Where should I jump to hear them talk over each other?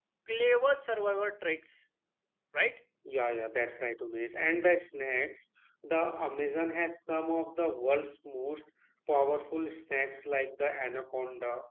none

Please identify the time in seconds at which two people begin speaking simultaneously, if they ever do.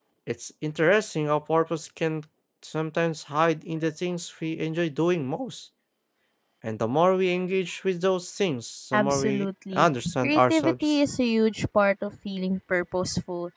8.9 s

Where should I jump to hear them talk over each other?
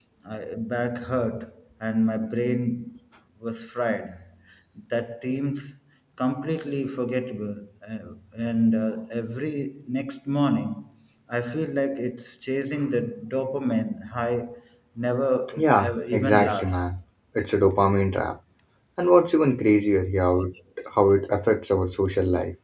15.6 s

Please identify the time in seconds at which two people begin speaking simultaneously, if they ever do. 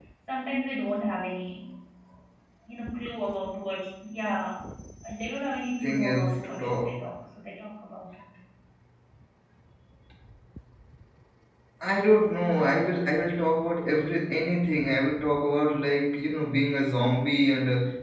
5.8 s

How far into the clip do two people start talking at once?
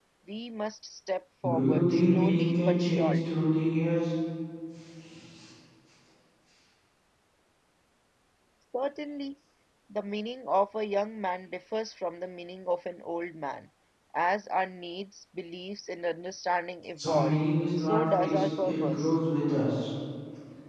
1.4 s

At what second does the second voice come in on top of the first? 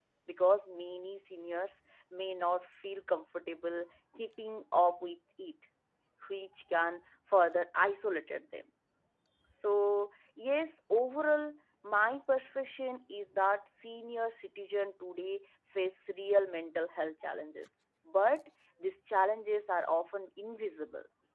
none

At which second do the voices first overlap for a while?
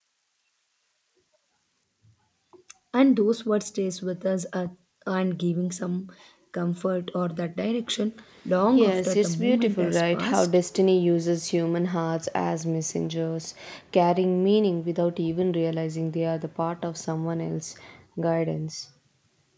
8.7 s

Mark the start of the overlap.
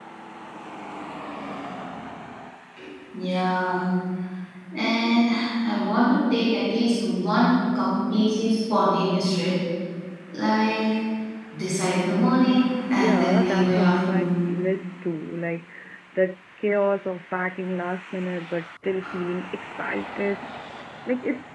13.0 s

